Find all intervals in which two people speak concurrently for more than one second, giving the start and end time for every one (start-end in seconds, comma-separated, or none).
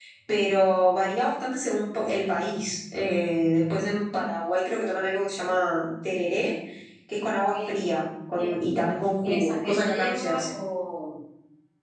9.2-10.5